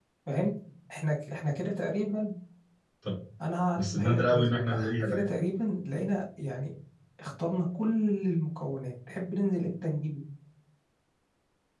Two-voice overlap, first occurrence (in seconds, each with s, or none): 3.8 s